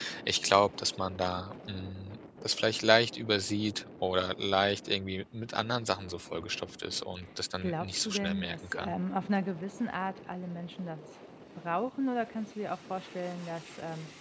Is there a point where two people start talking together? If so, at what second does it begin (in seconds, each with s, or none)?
7.6 s